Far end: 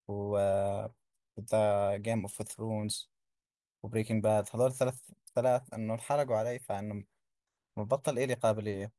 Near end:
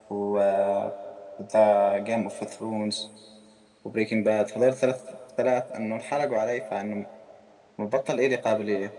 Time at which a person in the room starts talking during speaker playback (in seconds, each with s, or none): none